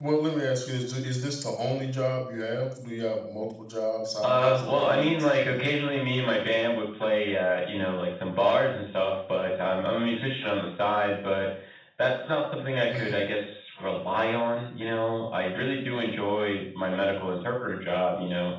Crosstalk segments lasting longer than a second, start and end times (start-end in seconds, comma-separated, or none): 4.2-5.6